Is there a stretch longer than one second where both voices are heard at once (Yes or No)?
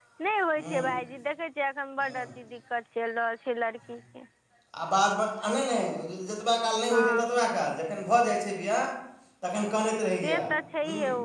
No